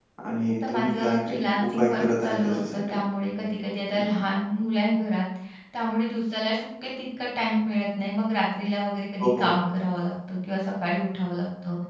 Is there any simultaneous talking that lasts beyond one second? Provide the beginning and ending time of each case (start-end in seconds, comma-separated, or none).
0.7-3.0